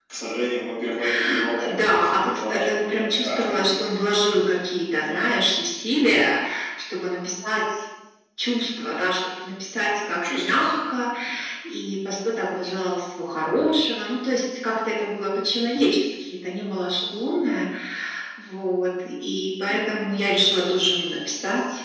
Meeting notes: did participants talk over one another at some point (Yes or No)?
Yes